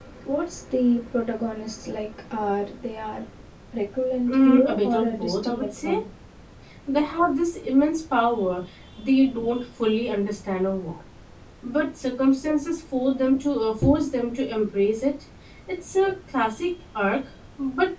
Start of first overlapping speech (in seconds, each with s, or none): 4.3 s